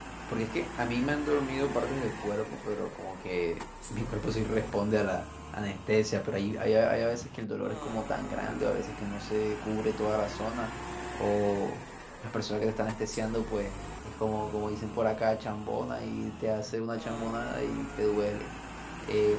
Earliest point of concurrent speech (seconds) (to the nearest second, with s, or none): none